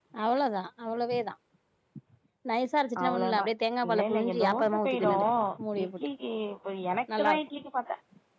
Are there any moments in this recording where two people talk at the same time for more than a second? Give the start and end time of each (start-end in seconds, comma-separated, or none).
3.9-5.1